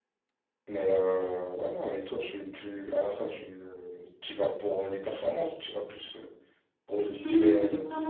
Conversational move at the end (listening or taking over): taking over